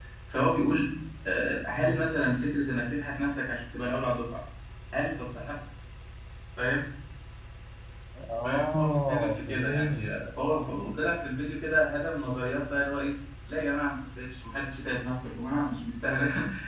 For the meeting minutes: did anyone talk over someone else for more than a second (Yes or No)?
Yes